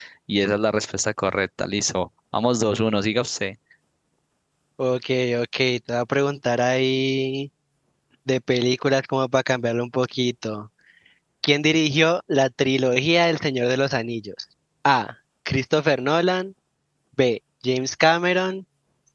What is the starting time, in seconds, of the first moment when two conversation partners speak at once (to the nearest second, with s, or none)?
none